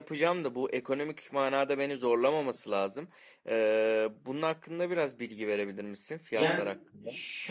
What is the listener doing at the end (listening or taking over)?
taking over